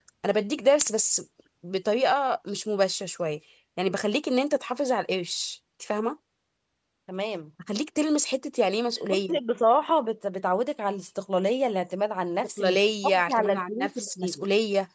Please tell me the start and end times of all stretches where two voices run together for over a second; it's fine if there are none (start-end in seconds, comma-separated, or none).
12.6-14.4